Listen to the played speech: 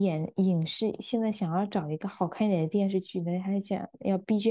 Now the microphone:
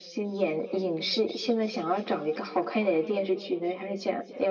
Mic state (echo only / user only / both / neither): echo only